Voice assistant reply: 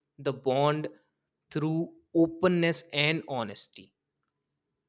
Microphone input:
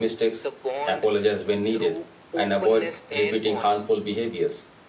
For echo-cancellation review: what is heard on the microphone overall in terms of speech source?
both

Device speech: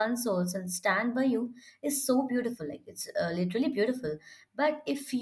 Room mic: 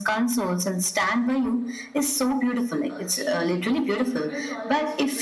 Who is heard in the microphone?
both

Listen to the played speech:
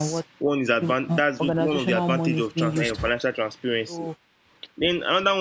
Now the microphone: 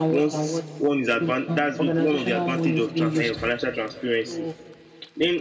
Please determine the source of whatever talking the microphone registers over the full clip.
echo only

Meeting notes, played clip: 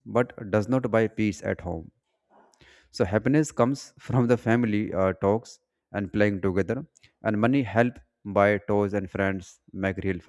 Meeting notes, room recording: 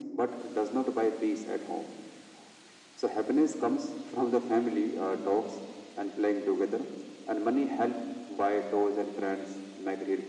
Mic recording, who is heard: echo only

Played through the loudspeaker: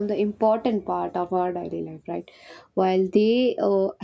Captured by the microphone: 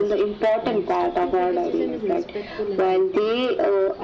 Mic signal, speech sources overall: both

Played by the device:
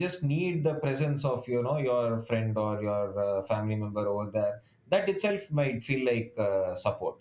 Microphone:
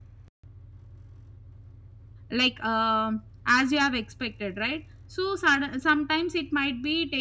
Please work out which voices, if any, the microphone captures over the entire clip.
user only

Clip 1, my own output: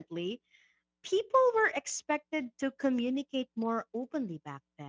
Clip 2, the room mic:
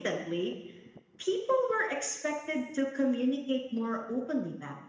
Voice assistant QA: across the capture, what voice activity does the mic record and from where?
echo only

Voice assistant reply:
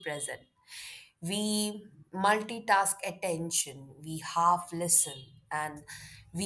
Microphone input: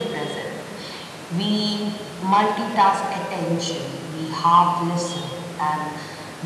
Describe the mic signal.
echo only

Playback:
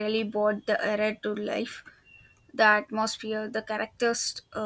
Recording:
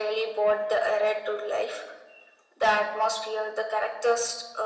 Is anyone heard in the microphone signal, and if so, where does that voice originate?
echo only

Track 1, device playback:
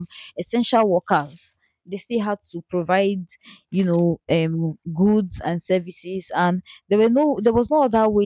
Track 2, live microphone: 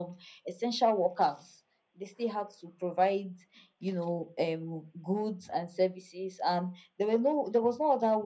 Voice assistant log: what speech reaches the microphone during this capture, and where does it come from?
echo only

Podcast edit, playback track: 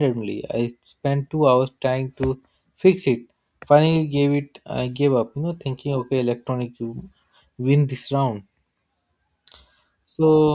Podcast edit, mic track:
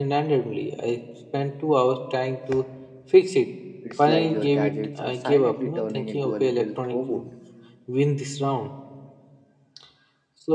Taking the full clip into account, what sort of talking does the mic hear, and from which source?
both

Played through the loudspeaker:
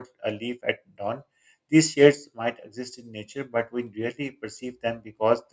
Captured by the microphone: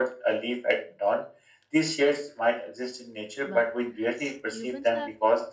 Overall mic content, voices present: both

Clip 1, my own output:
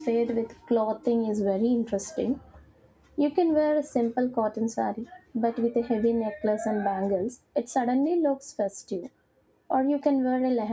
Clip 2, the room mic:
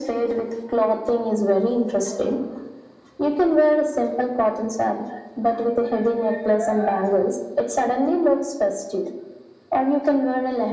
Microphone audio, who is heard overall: echo only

